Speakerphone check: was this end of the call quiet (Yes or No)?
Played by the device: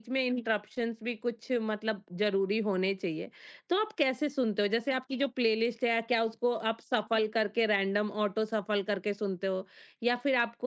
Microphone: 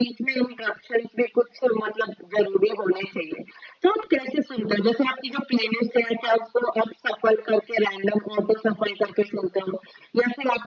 Yes